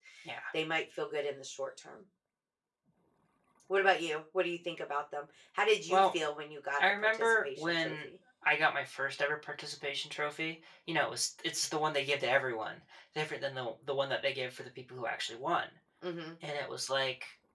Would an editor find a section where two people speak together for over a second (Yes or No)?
Yes